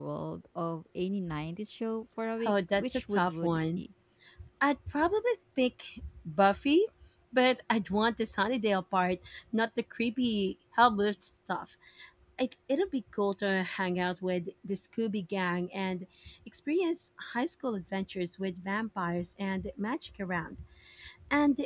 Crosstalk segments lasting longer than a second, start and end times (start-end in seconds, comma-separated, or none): 2.4-3.8